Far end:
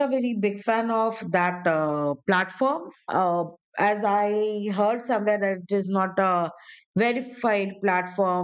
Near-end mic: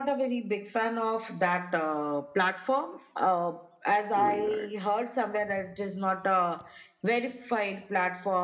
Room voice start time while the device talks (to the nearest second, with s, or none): 4 s